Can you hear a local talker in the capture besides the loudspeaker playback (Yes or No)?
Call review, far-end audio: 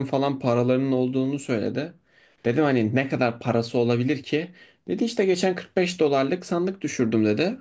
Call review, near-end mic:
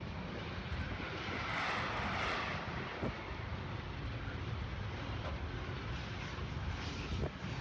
No